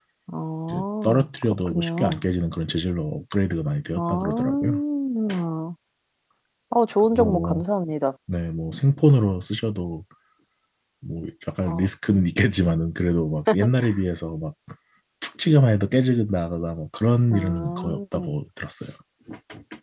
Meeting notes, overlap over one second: present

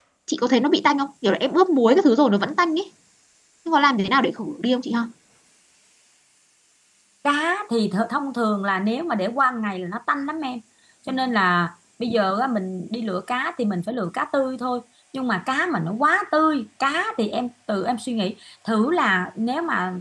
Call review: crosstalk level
none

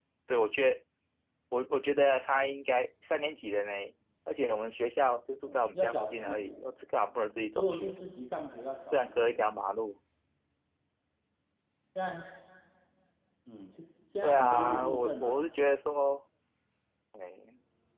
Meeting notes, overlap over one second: present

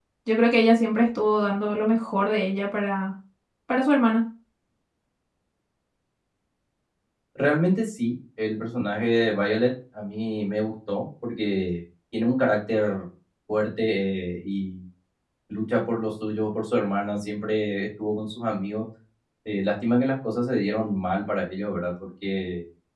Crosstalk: none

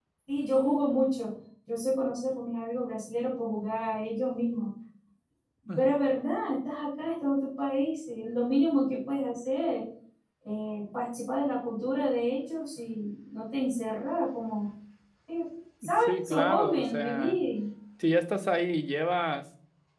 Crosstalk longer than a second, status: present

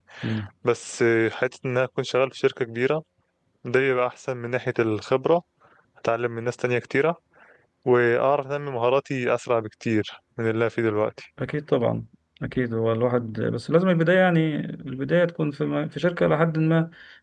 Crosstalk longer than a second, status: none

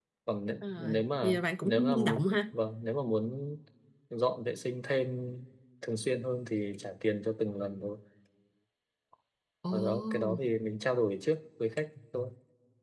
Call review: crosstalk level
present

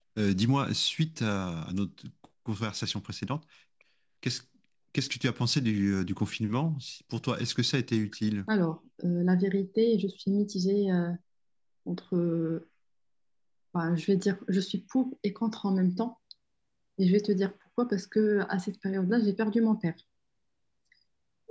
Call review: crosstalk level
none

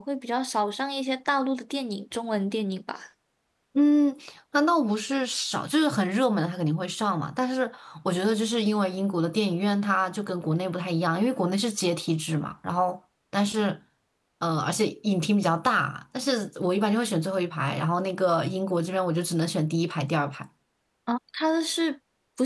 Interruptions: none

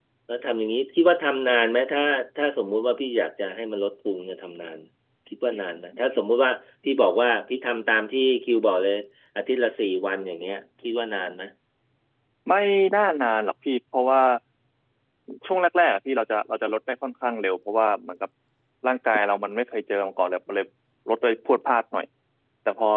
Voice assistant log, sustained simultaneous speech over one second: none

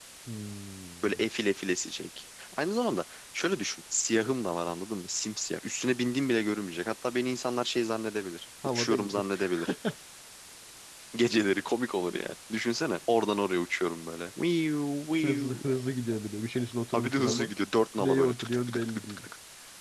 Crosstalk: present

